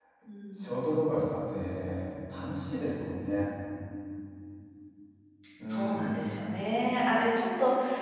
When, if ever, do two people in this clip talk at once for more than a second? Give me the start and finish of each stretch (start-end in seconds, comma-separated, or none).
none